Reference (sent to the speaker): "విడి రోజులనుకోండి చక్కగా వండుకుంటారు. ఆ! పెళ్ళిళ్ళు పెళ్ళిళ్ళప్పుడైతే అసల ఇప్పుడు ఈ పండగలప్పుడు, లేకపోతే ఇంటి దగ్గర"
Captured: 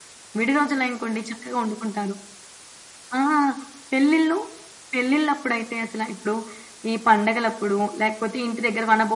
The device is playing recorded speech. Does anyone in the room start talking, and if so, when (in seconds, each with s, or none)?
none